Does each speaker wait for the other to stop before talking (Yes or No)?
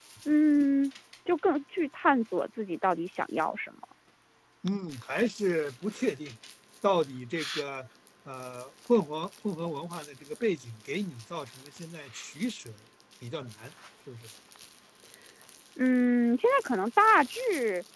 Yes